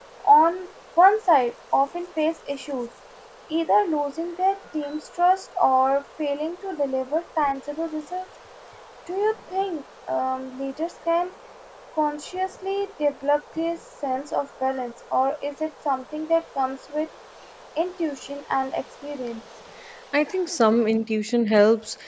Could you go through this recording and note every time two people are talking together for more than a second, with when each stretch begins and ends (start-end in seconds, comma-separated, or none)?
none